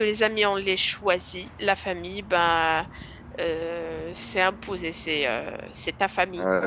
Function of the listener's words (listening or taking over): taking over